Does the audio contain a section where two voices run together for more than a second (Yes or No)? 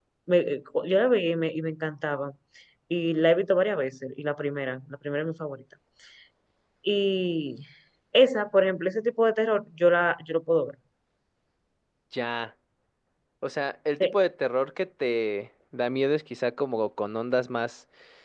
No